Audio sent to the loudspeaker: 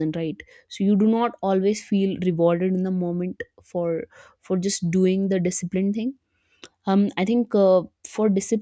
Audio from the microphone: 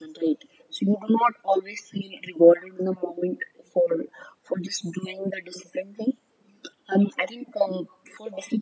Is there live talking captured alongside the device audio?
No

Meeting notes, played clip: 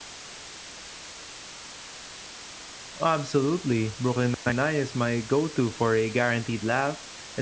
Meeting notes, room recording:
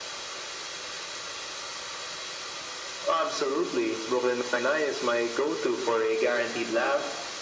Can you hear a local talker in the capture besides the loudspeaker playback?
No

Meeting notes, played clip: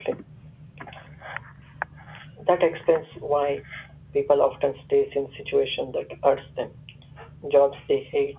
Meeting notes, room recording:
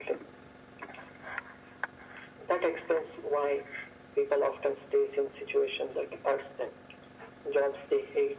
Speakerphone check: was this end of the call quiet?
Yes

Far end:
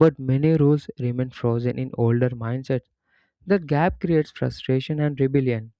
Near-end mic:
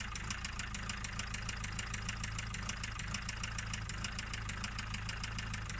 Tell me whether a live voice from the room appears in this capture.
No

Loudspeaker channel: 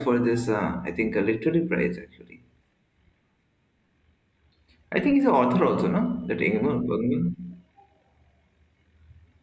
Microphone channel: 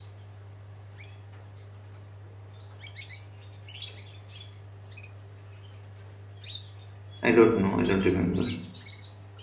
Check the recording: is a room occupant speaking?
Yes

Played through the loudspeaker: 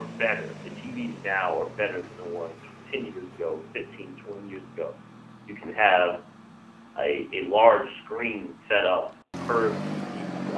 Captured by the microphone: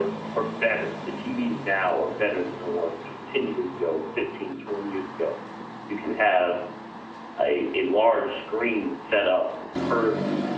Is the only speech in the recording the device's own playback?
Yes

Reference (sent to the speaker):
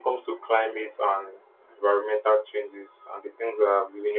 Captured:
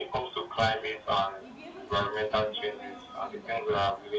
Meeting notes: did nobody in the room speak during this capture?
No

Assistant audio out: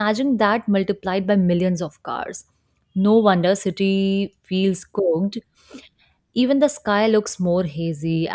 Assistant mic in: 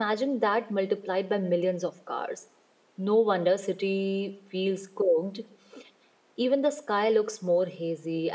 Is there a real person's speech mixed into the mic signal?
No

